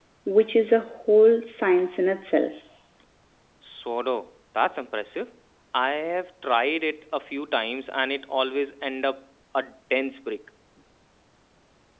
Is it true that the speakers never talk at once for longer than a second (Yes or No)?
Yes